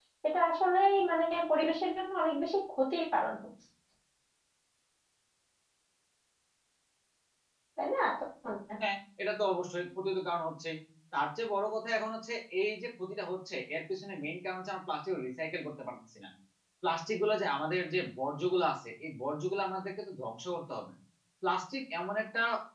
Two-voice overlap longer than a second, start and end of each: none

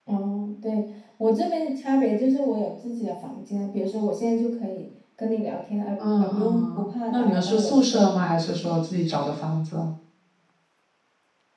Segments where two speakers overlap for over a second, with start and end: 6.2-8.8

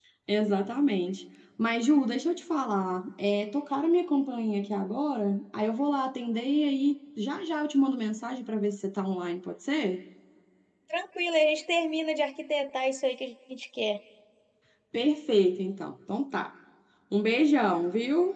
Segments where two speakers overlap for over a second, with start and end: none

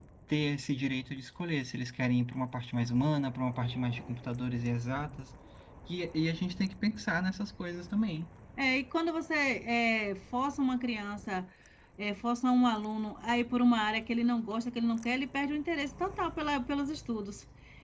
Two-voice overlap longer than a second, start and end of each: none

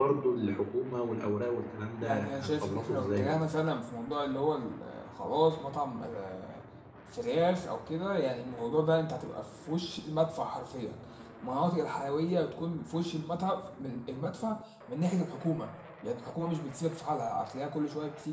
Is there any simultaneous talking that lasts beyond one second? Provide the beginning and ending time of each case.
2.0-3.4

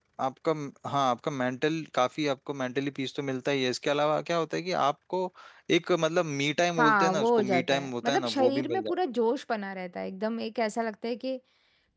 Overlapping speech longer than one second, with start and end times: 6.8-9.0

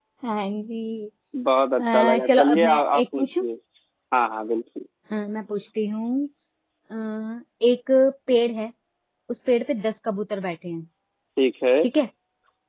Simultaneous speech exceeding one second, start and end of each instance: 1.8-3.4

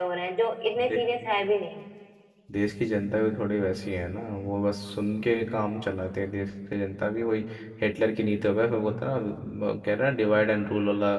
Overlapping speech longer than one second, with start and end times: none

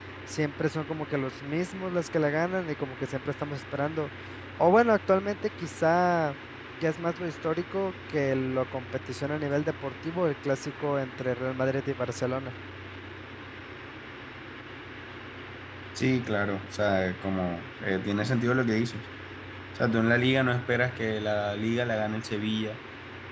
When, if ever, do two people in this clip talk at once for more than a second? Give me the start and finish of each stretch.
none

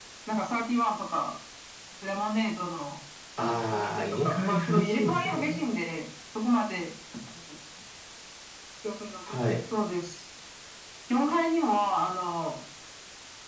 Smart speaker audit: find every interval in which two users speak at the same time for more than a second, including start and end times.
3.7-5.6

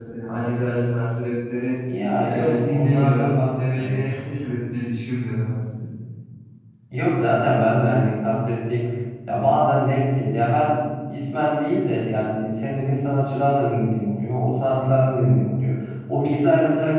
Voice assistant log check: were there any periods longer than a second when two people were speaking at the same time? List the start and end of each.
2.2-4.0

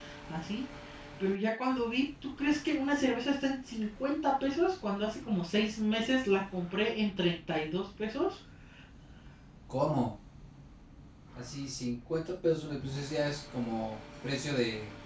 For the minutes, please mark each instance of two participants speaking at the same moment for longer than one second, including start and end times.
none

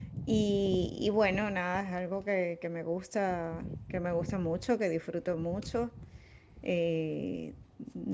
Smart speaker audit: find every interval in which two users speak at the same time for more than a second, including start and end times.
none

